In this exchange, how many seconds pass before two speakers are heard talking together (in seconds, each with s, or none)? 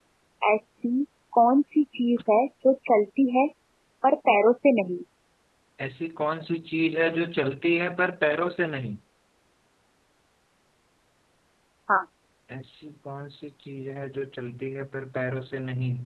none